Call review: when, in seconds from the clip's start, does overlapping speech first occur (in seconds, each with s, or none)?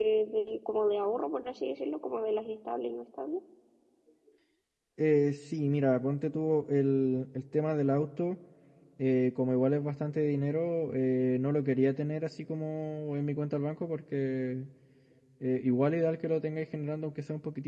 none